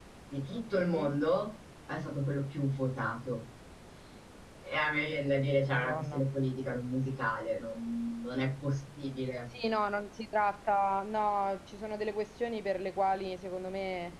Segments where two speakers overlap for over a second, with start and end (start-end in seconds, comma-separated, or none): none